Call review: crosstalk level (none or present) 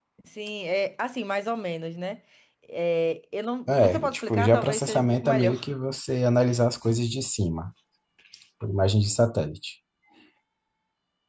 present